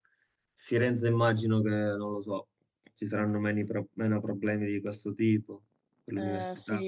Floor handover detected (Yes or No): Yes